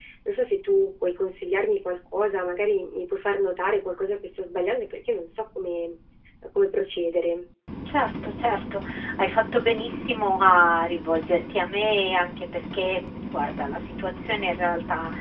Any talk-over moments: No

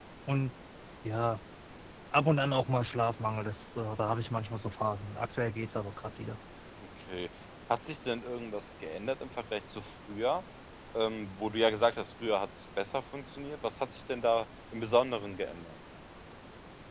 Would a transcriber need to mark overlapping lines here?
No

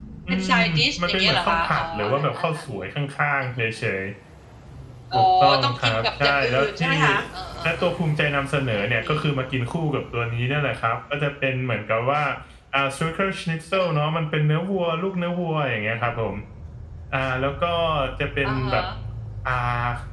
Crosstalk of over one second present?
Yes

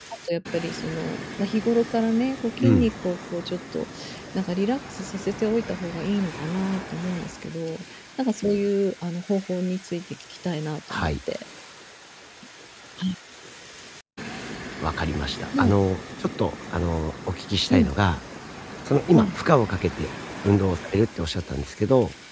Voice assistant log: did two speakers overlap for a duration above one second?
No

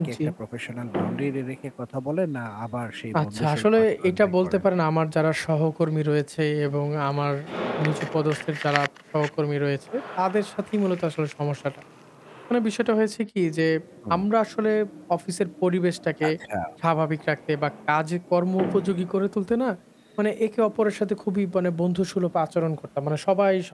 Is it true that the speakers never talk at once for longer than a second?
No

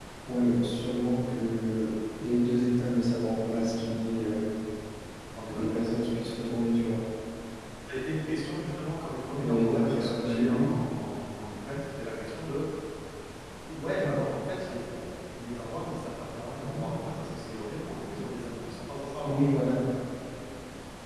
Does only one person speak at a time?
No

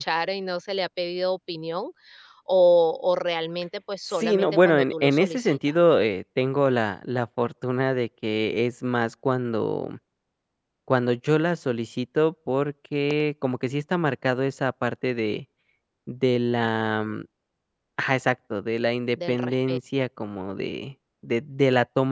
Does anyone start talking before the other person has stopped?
Yes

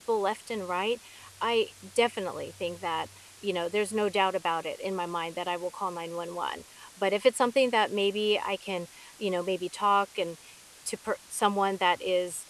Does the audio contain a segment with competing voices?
No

